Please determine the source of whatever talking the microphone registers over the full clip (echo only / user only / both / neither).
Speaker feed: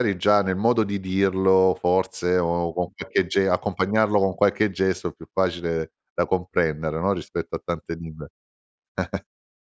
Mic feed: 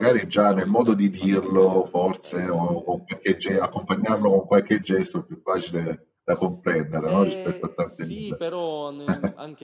both